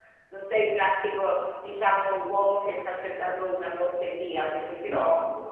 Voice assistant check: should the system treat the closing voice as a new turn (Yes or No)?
No